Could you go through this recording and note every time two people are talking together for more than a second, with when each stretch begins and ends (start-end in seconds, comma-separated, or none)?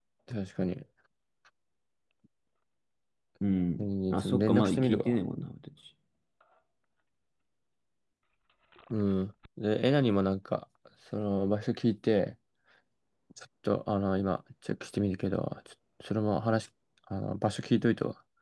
3.8-5.2